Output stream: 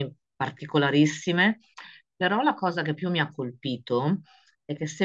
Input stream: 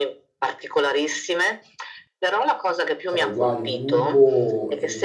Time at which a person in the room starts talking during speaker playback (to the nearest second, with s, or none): 3 s